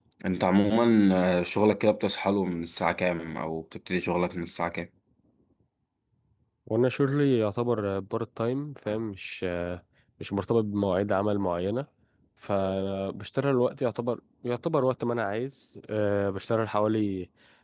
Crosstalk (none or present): none